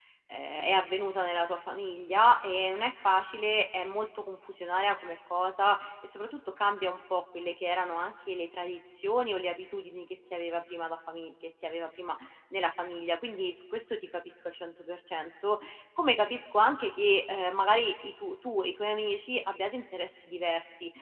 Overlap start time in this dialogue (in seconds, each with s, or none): none